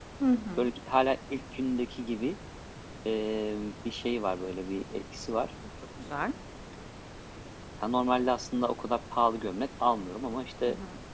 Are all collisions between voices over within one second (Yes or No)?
Yes